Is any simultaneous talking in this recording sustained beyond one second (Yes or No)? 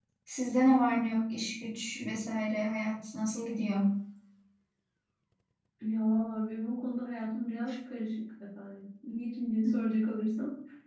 No